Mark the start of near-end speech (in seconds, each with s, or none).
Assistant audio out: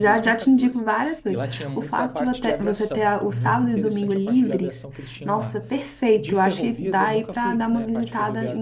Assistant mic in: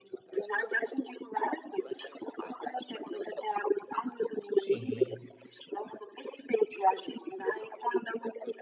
4.5 s